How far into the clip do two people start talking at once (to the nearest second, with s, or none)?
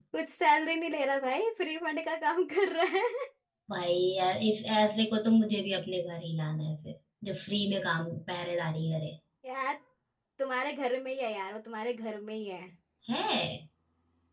none